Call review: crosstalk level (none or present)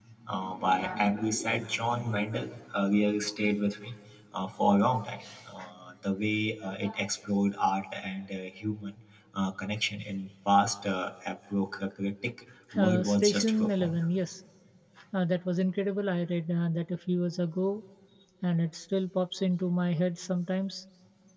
present